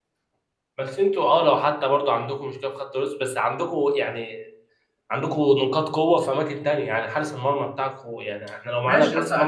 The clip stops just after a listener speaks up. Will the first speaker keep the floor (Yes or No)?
No